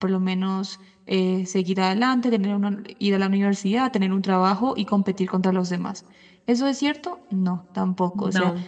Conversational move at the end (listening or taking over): listening